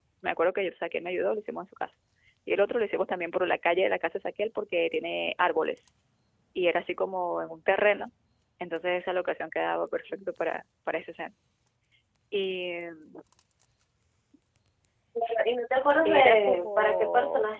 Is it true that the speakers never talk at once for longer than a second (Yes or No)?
No